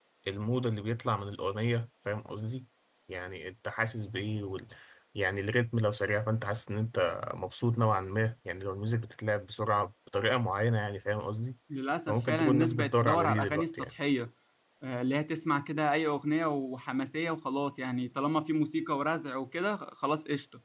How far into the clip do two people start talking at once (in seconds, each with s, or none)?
12.1 s